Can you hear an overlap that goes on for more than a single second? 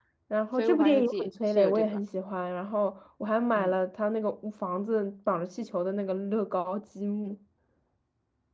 Yes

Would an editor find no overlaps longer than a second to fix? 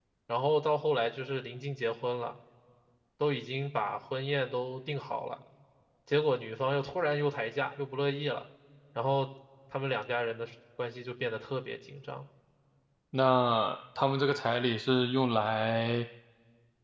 Yes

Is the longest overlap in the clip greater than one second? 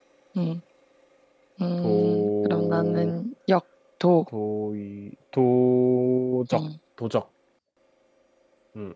Yes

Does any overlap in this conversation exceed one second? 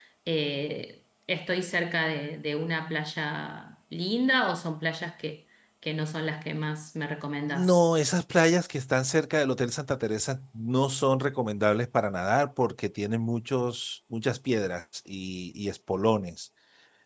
No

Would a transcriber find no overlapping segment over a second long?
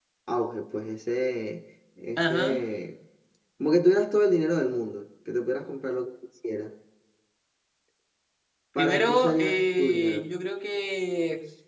No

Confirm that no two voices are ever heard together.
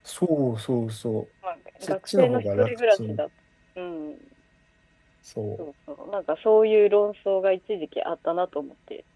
No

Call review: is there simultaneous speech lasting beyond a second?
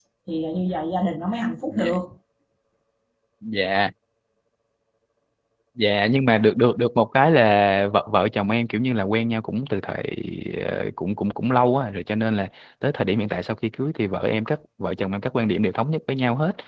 No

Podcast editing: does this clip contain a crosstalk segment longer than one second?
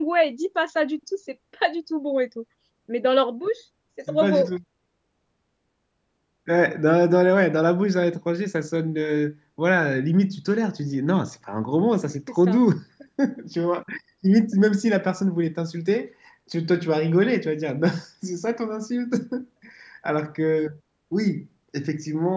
No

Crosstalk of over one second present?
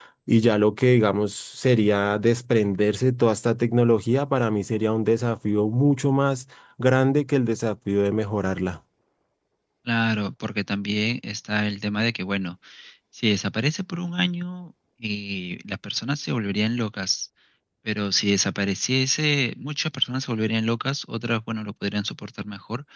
No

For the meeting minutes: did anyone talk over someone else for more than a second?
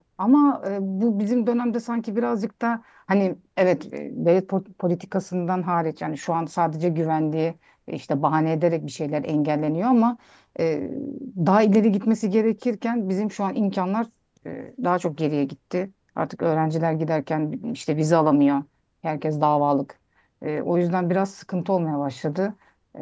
No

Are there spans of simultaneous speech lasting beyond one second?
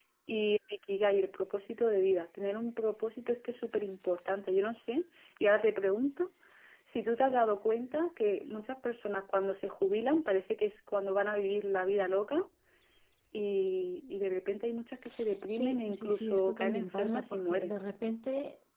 Yes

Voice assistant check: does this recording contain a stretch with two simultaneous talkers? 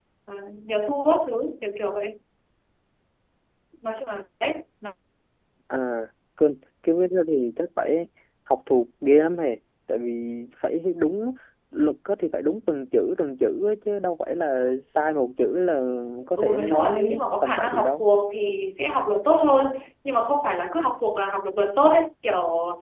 Yes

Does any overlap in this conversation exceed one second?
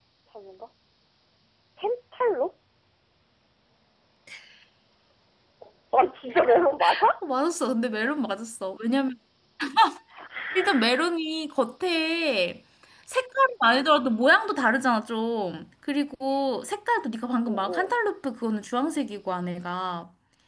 No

